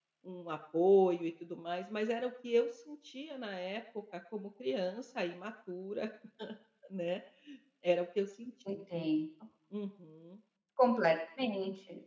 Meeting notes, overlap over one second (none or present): none